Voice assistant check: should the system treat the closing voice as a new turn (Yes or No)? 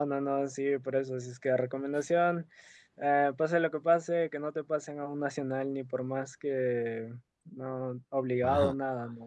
Yes